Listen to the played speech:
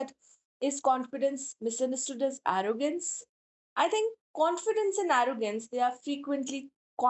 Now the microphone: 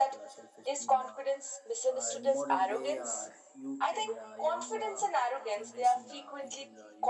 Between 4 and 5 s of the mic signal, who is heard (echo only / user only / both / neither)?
both